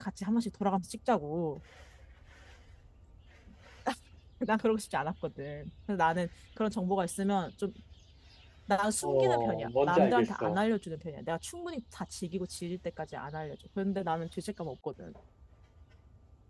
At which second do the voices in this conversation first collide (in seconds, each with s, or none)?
9.0 s